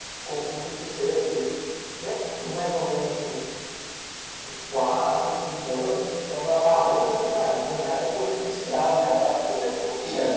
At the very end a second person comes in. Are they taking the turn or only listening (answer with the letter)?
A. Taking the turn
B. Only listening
A